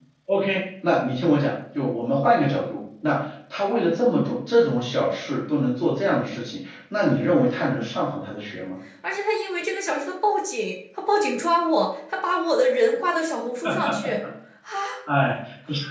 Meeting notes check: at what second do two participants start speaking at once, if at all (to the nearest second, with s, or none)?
none